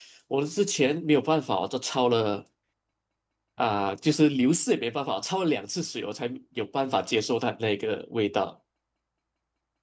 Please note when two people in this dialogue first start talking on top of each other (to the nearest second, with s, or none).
none